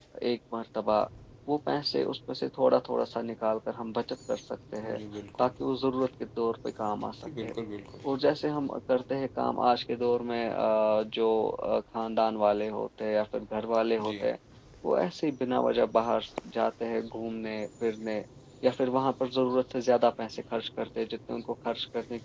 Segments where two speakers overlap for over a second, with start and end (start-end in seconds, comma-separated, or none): none